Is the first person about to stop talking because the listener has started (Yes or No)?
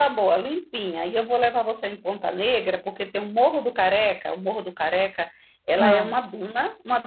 No